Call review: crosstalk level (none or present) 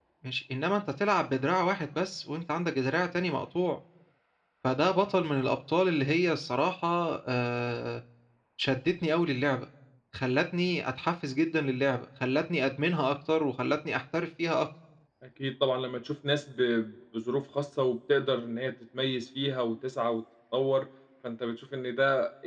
none